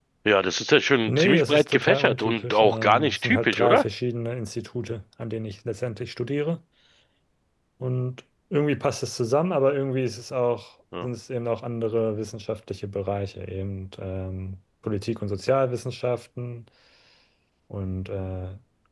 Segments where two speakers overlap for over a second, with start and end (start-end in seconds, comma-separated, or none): 1.1-3.8